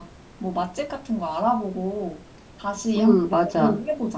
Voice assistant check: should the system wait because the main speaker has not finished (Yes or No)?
No